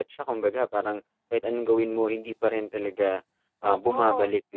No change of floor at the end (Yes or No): No